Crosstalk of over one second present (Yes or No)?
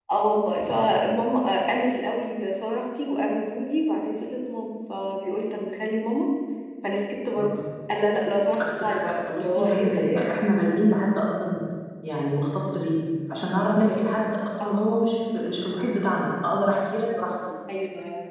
Yes